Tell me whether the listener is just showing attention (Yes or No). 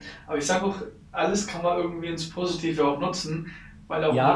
No